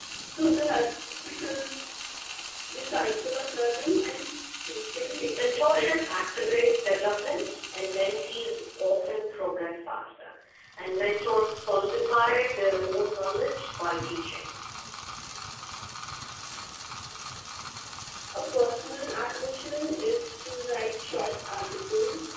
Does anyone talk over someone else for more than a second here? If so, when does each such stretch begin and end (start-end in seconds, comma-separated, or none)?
5.3-6.8